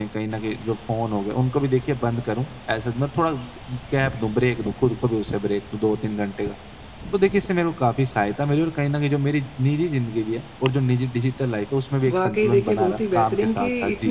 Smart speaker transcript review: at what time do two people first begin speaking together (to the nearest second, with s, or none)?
12 s